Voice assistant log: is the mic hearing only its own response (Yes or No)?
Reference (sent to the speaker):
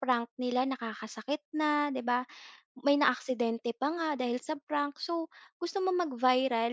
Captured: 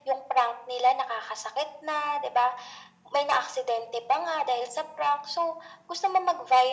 Yes